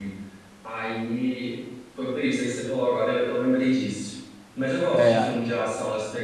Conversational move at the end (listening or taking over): listening